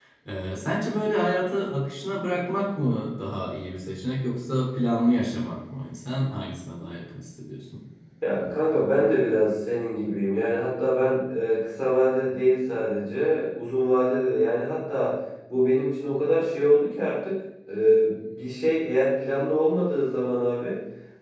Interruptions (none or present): none